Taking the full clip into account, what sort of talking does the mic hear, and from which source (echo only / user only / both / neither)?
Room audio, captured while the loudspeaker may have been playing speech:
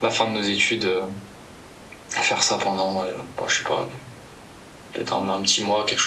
echo only